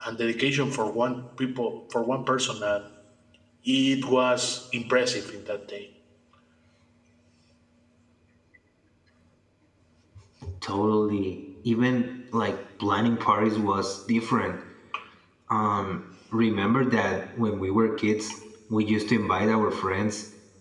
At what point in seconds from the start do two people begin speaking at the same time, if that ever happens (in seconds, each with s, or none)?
none